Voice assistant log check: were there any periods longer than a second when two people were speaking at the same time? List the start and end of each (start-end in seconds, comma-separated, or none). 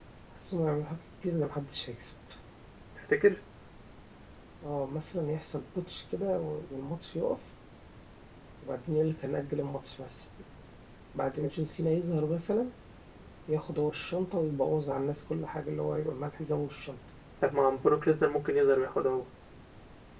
none